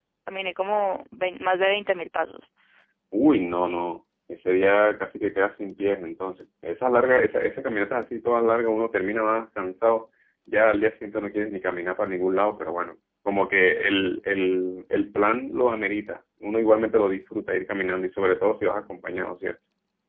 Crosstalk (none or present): none